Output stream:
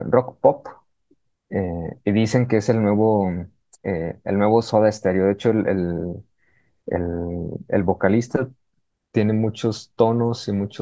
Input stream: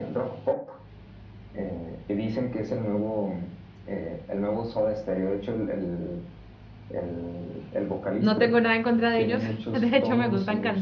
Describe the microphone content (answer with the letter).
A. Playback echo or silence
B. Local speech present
B